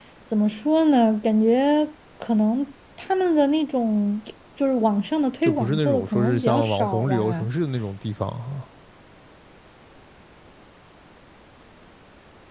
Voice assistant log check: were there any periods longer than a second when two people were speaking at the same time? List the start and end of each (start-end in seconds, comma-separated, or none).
5.4-7.5